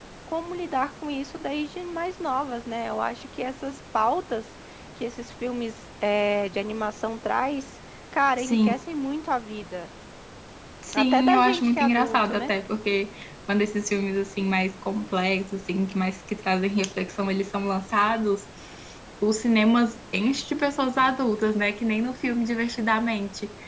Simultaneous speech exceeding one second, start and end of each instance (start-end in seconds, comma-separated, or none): 10.9-12.5